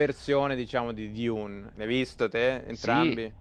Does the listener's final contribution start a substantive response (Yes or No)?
Yes